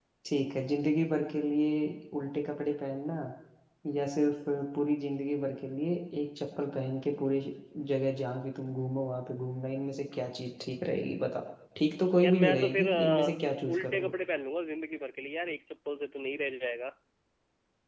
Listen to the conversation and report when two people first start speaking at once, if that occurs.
12.2 s

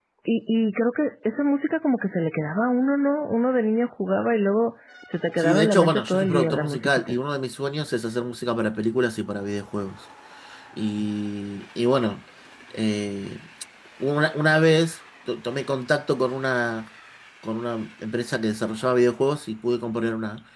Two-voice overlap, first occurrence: 5.4 s

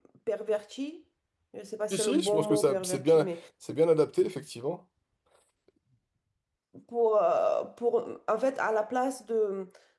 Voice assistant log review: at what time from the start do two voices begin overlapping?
1.9 s

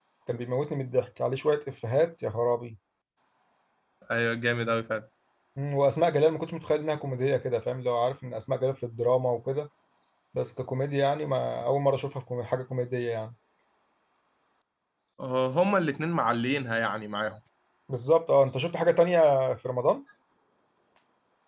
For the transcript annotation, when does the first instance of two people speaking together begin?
none

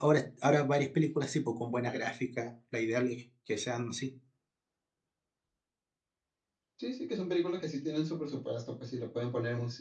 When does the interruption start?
none

